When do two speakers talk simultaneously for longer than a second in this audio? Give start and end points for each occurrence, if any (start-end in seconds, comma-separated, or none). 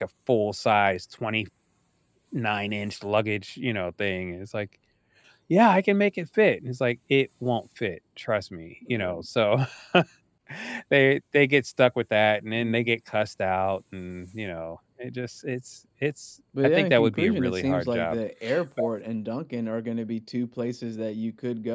16.8-18.2